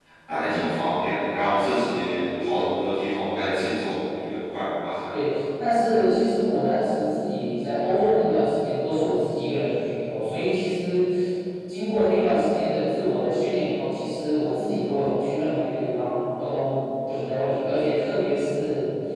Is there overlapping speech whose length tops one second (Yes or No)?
No